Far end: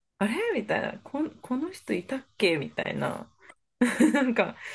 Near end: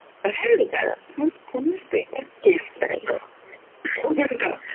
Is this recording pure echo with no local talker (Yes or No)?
Yes